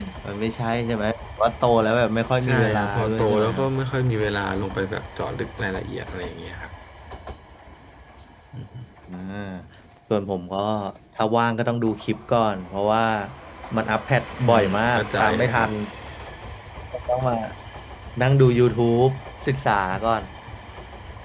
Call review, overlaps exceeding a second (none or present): present